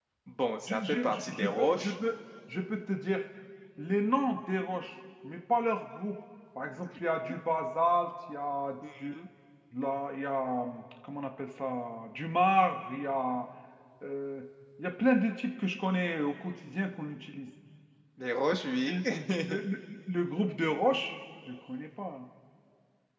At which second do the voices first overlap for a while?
0.7 s

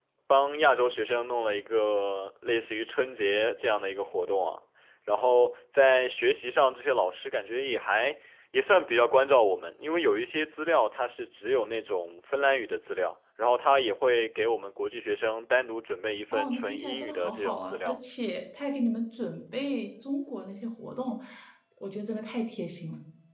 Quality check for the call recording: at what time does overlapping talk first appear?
16.3 s

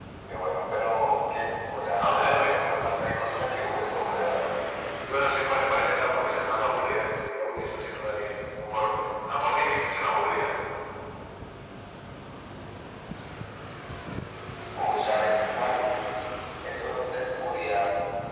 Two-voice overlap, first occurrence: 2.0 s

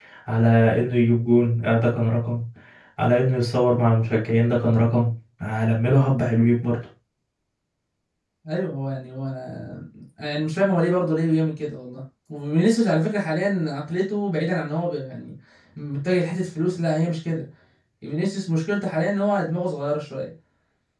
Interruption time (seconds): none

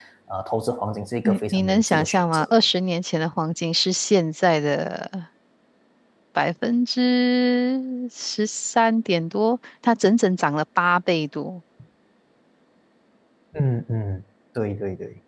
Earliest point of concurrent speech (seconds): 1.2 s

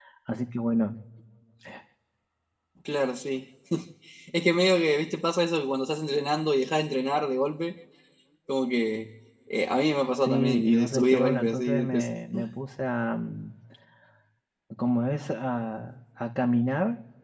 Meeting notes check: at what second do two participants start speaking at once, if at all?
10.2 s

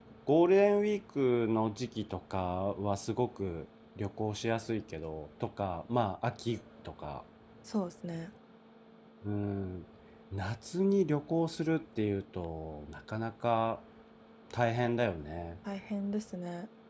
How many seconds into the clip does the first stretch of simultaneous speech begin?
none

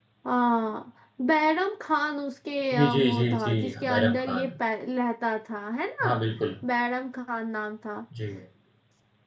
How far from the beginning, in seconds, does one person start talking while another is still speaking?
2.7 s

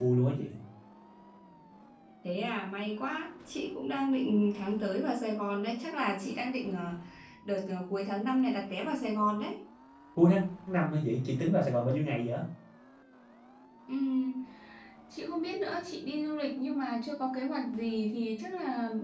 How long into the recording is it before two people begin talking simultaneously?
none

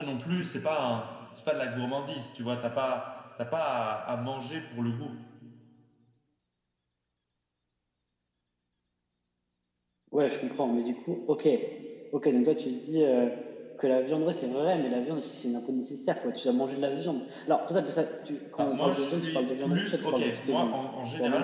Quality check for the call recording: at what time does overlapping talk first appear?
18.6 s

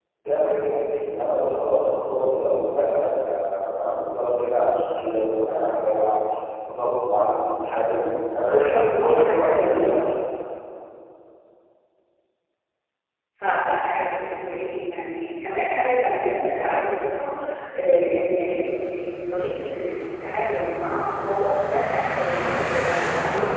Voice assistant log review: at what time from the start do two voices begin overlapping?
8.4 s

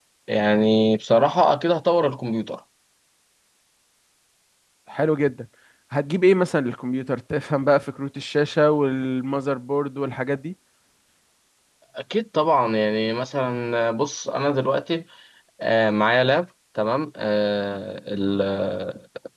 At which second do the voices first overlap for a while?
none

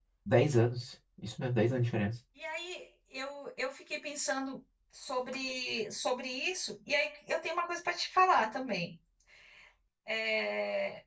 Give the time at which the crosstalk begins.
none

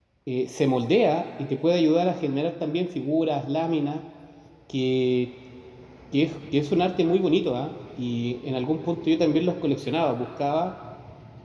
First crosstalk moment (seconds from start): none

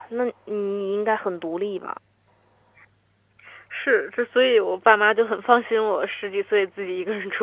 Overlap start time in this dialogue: none

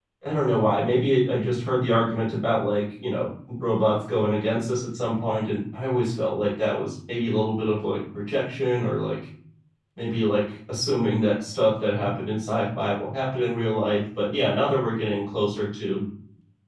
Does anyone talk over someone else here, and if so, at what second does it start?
none

